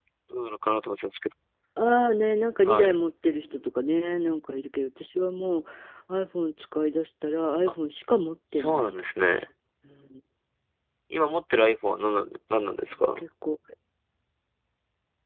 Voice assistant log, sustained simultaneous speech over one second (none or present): none